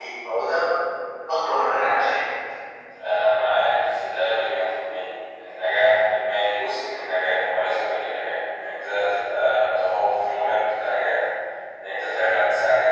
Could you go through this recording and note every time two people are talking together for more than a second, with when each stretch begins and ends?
none

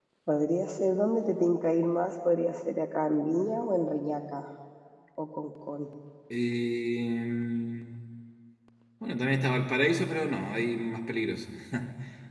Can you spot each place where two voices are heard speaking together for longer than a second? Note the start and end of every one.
none

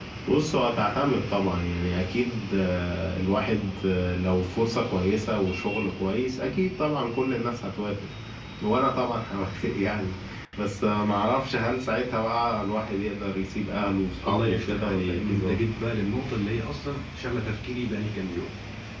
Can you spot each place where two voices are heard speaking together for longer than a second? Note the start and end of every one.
14.2-15.6

